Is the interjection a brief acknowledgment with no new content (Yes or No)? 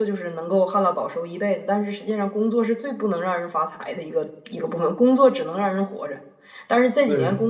Yes